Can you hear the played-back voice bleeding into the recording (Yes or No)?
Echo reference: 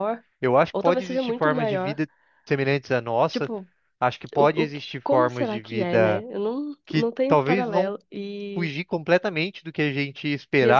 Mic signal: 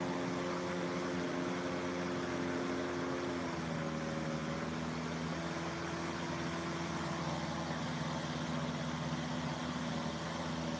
No